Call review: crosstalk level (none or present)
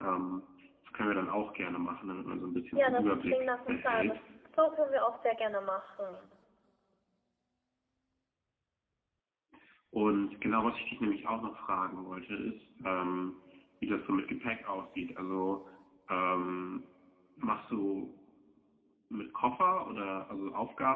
present